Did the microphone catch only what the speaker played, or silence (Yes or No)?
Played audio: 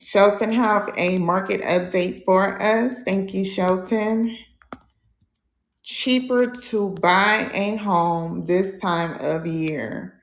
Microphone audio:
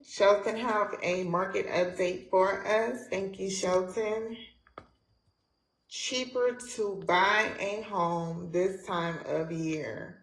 Yes